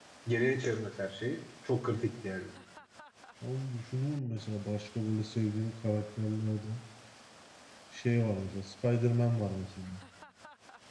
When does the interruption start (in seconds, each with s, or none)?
none